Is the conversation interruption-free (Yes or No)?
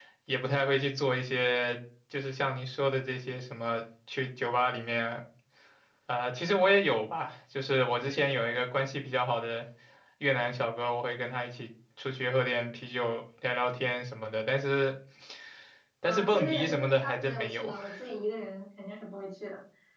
No